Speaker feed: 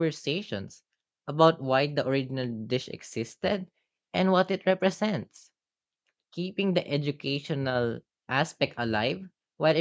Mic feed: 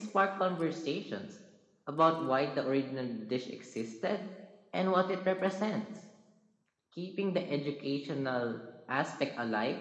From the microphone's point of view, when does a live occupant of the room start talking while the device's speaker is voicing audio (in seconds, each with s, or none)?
none